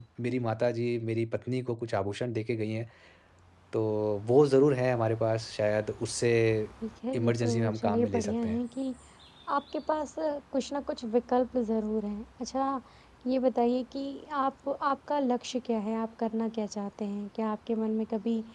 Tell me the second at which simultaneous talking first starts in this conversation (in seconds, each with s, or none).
7.1 s